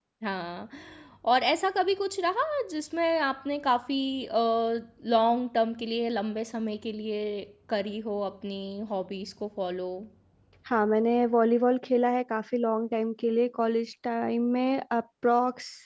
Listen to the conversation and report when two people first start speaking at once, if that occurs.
none

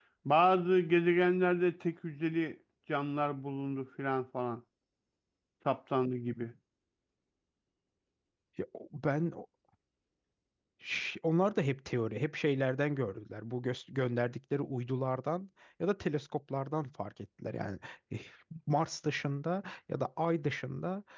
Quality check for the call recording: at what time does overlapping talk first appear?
none

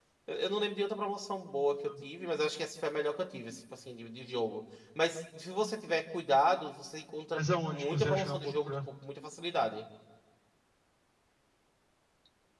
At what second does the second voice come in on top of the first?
7 s

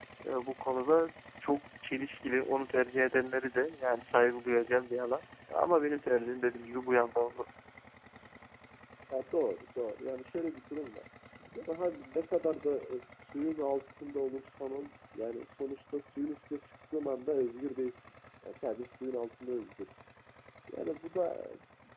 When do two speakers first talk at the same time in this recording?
none

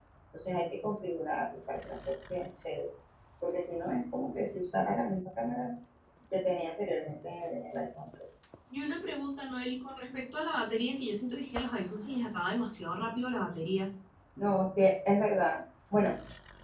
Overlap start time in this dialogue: none

